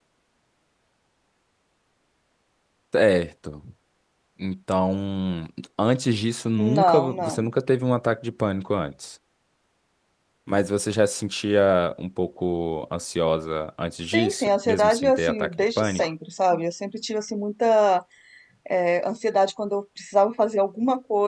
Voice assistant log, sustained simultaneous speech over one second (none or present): present